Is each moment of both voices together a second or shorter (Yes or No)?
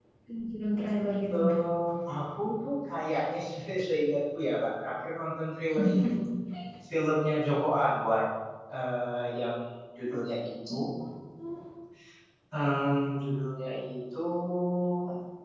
Yes